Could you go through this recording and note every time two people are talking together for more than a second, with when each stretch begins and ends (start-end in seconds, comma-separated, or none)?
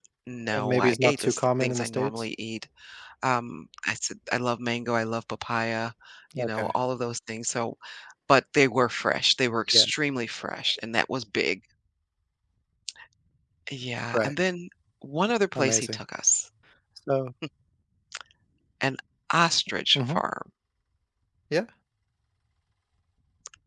0.5-2.2